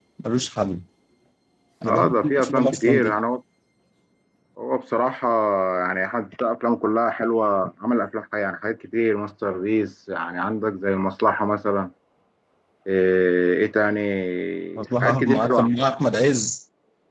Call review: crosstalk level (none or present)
present